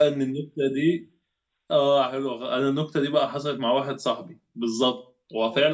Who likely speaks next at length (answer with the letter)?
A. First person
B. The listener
A